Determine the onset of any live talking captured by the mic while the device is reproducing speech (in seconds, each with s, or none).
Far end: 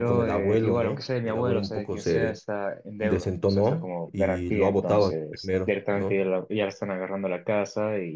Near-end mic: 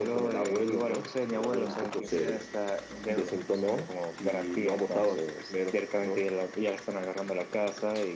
none